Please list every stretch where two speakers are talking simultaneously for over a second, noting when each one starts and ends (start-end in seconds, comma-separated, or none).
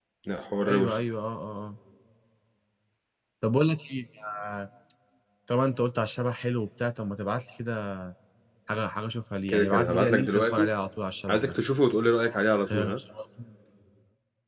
9.5-10.7